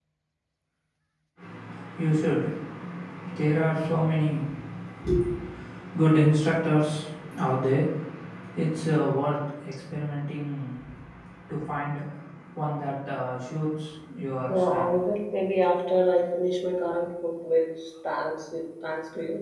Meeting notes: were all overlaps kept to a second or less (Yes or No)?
Yes